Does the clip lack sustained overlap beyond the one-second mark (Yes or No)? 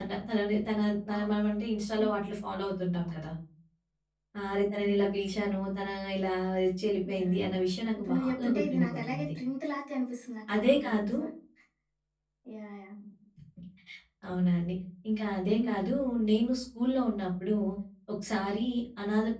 No